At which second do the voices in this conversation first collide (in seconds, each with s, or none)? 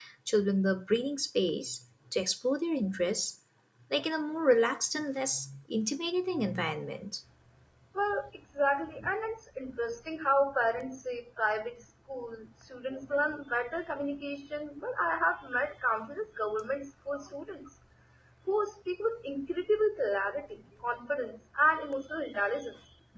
none